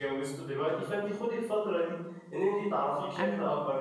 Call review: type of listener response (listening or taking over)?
listening